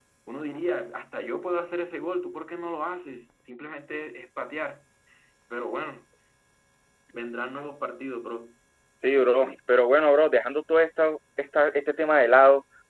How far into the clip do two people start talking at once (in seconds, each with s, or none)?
none